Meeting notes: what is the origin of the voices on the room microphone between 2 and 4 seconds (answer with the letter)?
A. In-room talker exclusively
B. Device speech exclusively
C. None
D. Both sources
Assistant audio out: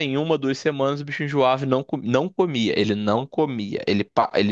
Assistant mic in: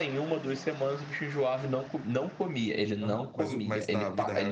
D